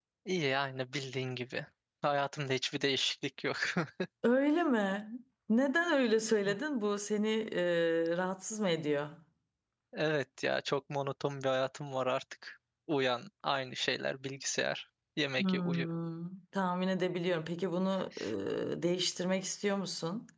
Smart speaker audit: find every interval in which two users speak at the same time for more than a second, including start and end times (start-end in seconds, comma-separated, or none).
none